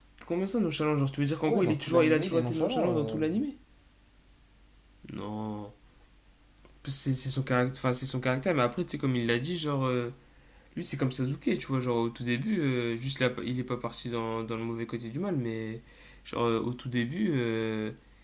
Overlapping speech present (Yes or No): Yes